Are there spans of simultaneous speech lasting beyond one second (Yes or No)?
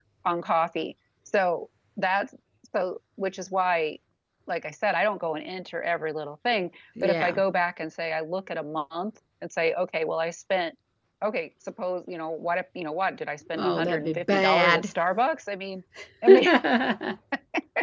Yes